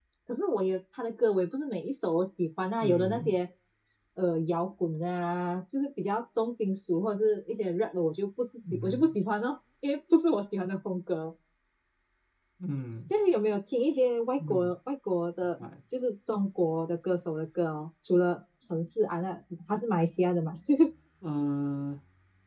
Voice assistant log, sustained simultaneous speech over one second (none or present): none